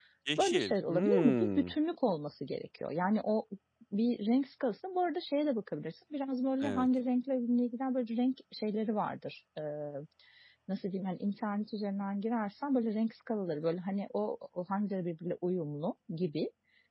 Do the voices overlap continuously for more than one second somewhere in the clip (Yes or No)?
Yes